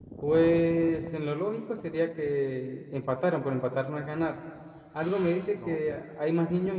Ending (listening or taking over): listening